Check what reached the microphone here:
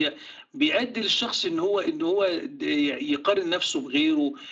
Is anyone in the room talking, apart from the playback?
No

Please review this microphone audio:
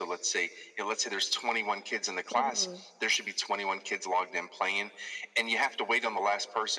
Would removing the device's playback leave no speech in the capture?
No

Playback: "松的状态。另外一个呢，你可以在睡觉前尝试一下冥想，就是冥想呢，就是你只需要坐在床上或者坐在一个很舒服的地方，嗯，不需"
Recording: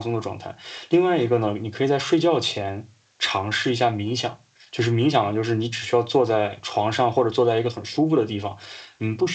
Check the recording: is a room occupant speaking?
No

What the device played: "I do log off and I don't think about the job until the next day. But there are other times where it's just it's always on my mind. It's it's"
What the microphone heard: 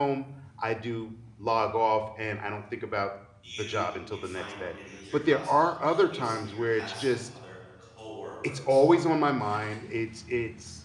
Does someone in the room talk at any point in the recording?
Yes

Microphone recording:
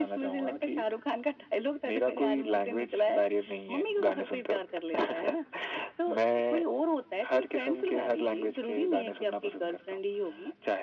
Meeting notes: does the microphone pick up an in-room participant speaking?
No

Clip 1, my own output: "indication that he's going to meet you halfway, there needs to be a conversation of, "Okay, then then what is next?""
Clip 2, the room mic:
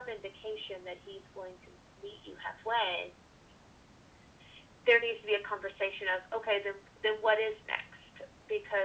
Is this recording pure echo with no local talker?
Yes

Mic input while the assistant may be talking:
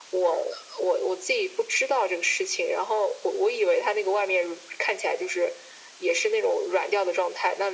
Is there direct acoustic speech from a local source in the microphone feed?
No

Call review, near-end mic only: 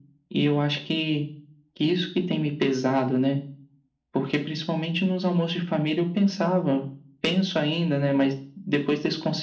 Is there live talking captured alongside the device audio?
No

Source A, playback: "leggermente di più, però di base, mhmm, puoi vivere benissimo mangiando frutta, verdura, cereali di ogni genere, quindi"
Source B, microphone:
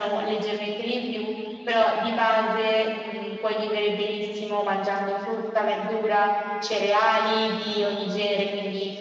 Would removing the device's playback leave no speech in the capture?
Yes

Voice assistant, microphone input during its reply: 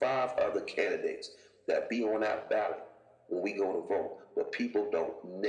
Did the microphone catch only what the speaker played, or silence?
Yes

